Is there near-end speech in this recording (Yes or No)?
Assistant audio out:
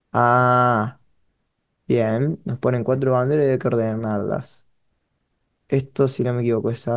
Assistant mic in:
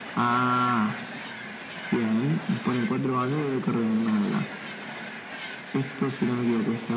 No